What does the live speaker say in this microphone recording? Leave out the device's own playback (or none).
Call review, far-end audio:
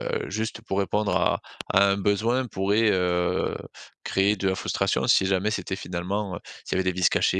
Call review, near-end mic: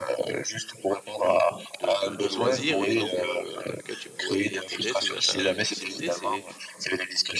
de de de loisirs et donc heu, dans lequel tu pourrais y intégrer tes achats d'impulsivité. C'est